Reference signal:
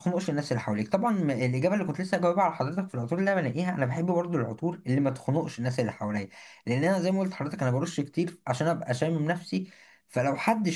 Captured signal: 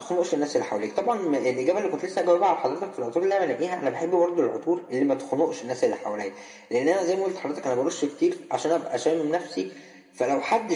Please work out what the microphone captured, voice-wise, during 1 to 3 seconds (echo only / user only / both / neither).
echo only